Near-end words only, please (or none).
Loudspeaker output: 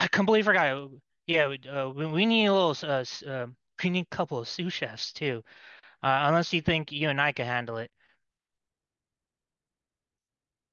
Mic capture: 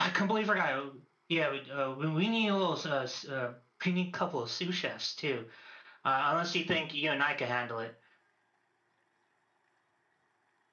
none